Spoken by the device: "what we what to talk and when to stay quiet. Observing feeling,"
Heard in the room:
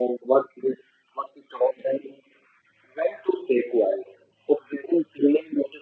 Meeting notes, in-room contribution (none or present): none